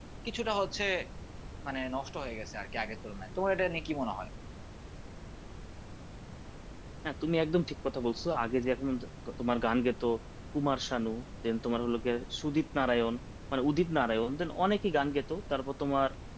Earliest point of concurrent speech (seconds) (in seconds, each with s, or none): none